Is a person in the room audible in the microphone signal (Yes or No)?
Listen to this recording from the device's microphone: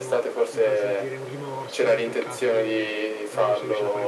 Yes